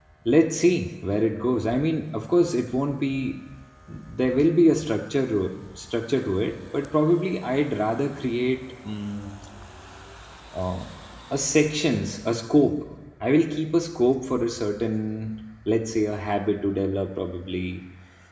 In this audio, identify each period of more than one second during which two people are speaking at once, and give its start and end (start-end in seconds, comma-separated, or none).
none